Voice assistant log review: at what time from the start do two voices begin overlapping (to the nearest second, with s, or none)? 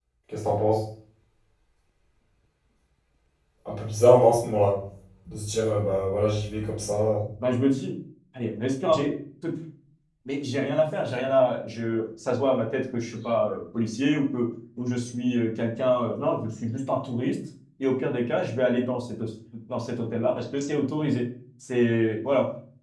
none